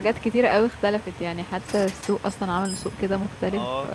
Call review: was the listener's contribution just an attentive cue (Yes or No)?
No